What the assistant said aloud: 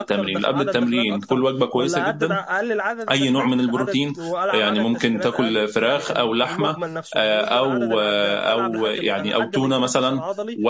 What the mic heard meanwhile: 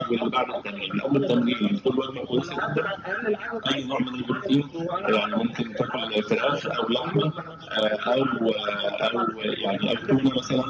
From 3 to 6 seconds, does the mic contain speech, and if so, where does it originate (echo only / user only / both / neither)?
echo only